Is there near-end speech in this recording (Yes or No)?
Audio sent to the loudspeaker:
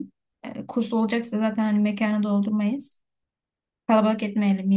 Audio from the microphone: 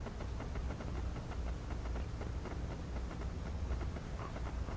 No